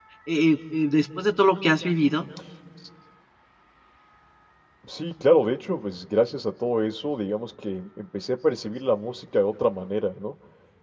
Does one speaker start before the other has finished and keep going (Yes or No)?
No